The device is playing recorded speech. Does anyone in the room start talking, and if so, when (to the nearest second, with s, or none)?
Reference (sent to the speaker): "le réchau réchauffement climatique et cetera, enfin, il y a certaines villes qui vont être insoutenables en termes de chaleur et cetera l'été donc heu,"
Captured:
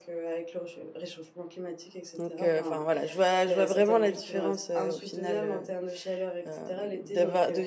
2 s